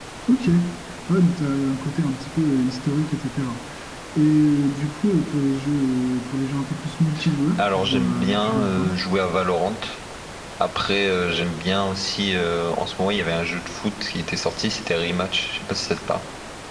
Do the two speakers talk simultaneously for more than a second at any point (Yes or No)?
Yes